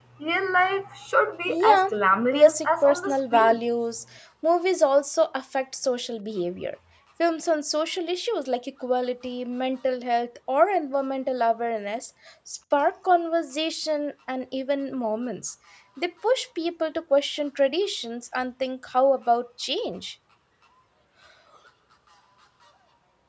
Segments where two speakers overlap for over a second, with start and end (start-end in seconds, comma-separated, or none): 2.3-3.6